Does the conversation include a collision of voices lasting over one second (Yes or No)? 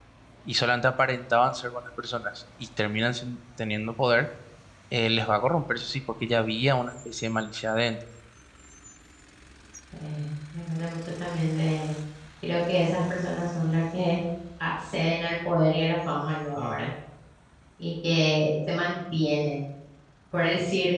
No